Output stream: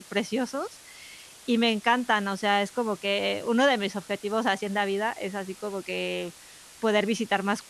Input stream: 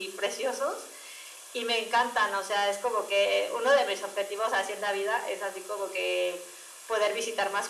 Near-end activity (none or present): none